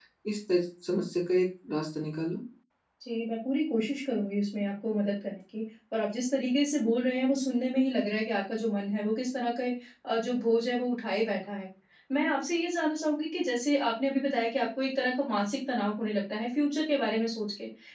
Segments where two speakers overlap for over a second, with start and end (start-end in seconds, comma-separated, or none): none